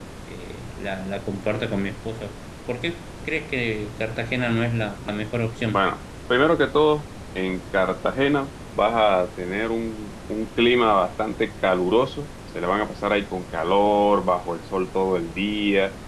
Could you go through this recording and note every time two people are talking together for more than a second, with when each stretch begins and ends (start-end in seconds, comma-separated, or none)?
none